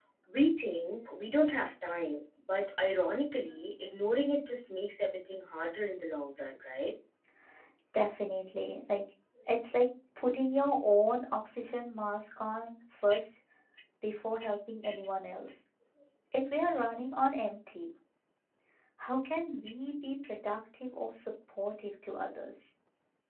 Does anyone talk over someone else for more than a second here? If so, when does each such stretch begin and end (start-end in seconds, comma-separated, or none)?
none